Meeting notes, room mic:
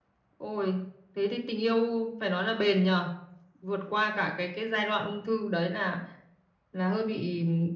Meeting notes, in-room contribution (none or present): none